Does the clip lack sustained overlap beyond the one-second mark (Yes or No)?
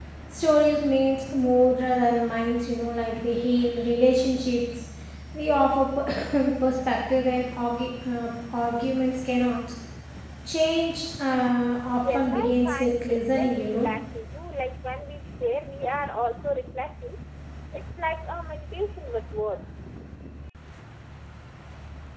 No